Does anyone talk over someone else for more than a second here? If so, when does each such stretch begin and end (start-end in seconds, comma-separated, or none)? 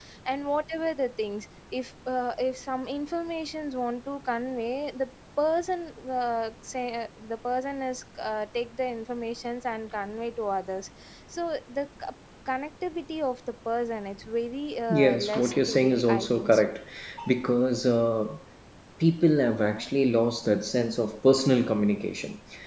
14.9-16.8